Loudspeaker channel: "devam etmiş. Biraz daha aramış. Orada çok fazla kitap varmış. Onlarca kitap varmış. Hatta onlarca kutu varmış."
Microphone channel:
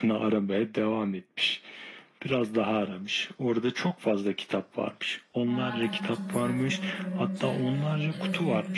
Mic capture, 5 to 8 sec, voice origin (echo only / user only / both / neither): both